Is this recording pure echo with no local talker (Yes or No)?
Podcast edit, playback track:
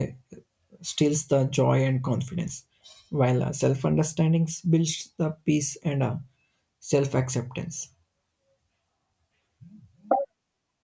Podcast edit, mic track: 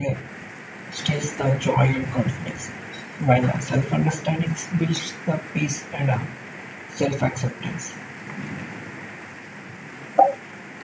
Yes